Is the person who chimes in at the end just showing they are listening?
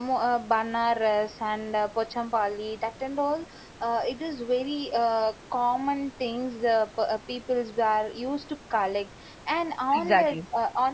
Yes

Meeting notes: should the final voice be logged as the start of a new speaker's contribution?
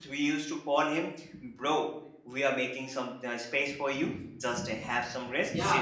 Yes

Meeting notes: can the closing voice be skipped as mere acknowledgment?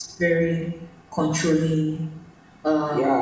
No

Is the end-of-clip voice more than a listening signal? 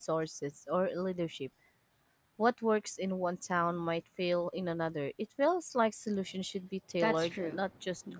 Yes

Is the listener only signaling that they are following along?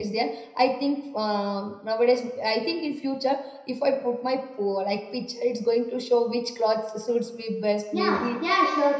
No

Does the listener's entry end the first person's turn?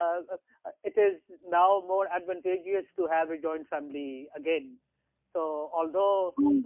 No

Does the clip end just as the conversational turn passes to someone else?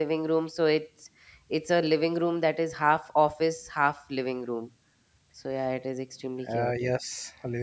Yes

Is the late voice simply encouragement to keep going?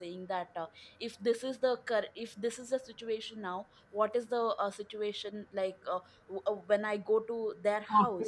Yes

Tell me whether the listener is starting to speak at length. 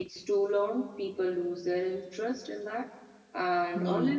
No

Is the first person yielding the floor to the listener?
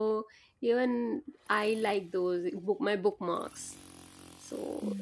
Yes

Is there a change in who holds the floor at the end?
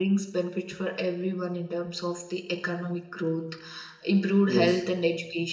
No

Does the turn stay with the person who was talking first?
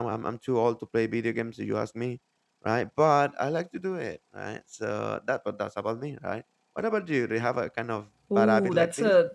No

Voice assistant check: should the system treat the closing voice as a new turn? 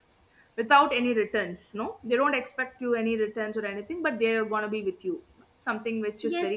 Yes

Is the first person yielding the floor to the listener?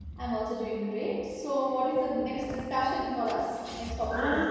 Yes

